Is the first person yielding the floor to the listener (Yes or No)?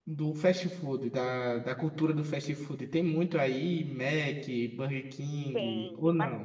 Yes